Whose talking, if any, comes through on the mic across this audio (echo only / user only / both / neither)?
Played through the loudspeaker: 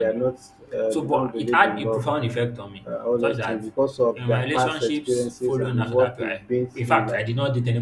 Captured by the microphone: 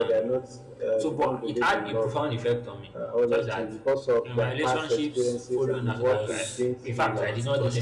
both